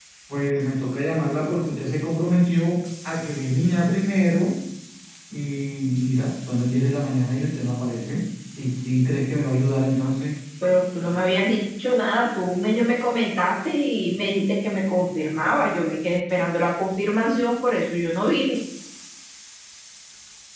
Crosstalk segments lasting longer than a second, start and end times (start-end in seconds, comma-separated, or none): none